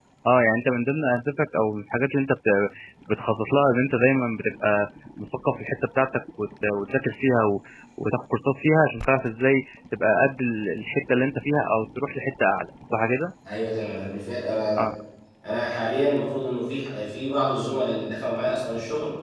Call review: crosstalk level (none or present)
none